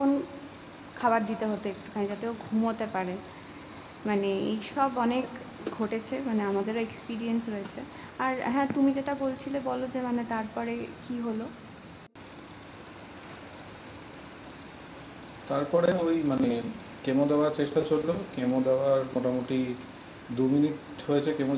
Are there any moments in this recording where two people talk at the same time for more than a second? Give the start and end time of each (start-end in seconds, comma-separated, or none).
none